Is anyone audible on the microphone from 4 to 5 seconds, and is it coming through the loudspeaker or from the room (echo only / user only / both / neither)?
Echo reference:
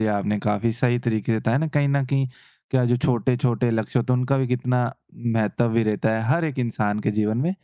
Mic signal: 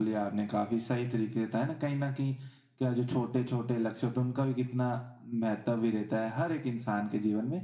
echo only